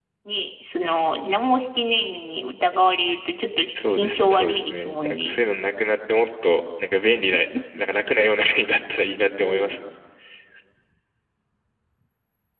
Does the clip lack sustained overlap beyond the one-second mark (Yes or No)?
No